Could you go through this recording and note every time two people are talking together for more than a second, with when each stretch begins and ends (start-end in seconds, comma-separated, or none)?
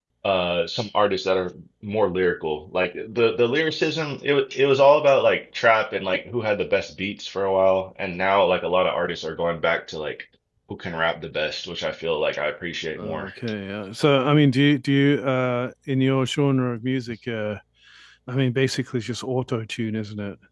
none